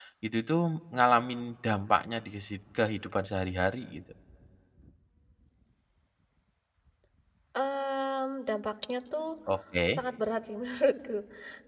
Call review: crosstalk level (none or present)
none